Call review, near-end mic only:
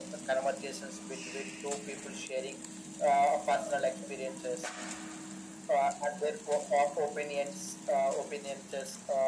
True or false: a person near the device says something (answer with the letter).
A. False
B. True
A